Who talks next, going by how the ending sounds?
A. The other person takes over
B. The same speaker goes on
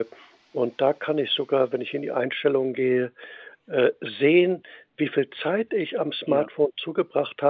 B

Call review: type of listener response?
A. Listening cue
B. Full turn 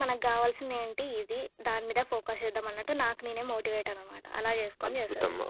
B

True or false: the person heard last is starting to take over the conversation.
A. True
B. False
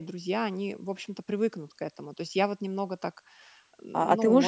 A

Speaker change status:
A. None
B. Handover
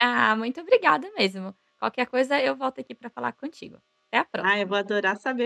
B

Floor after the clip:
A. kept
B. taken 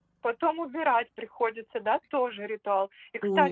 A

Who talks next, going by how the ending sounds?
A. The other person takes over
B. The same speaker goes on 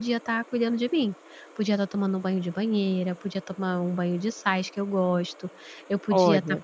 B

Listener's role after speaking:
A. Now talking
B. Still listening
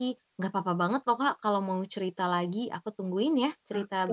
A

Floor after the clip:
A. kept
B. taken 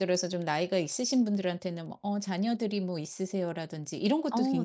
A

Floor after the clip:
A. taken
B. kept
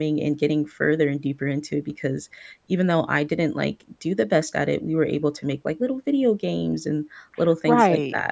A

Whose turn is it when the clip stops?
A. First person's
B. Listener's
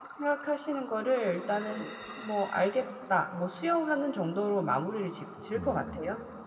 B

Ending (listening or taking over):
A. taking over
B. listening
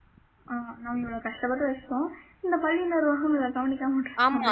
A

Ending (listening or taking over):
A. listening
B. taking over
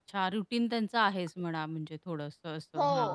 B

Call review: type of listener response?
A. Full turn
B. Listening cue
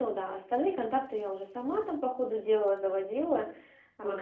A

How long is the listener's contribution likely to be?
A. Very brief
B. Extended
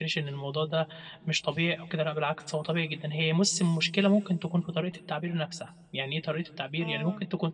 A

